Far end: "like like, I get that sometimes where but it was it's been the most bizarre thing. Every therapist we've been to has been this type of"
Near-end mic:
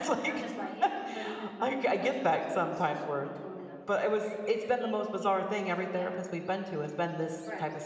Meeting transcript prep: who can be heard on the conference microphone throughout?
both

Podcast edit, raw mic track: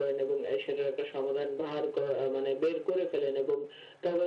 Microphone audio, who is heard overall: echo only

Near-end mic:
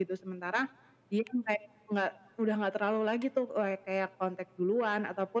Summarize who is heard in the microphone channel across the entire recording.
echo only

